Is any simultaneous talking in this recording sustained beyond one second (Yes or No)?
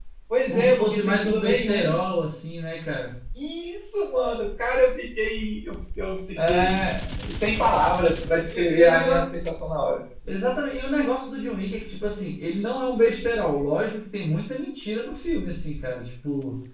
Yes